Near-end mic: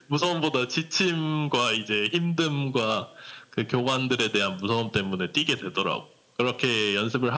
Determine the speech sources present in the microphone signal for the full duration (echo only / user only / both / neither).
echo only